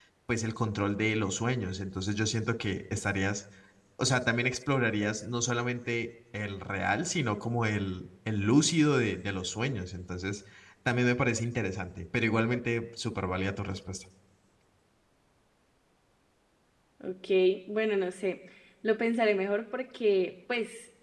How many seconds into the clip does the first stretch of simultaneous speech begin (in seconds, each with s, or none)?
none